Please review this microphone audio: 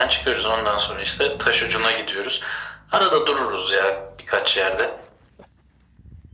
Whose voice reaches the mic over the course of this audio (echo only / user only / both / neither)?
echo only